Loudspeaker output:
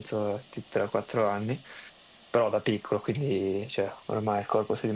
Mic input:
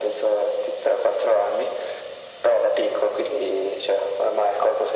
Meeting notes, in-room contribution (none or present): none